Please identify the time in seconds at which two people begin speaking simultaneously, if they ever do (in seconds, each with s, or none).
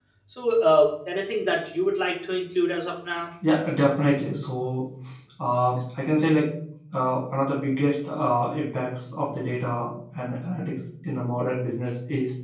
none